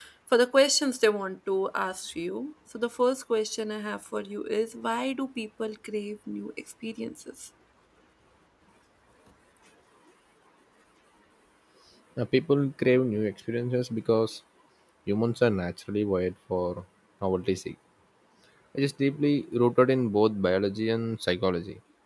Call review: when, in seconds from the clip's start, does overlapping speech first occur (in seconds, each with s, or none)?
none